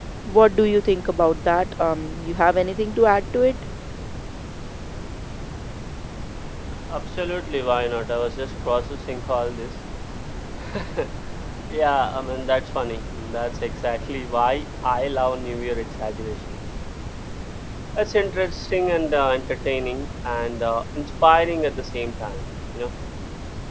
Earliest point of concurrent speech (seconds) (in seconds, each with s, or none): none